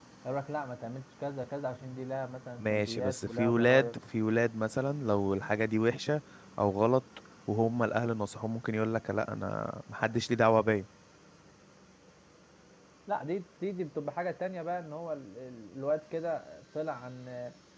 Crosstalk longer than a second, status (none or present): present